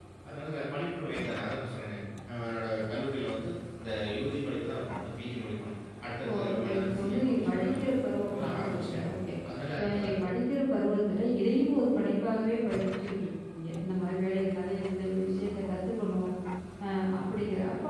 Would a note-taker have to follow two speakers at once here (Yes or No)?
Yes